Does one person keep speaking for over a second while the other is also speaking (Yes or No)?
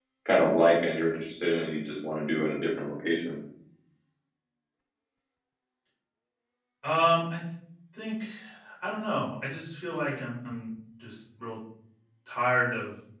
No